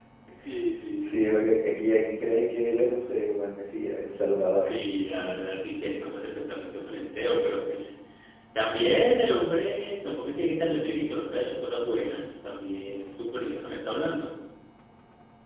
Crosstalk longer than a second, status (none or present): none